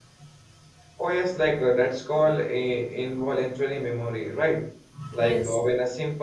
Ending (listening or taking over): listening